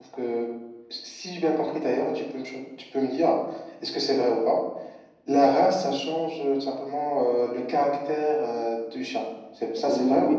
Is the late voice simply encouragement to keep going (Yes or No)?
No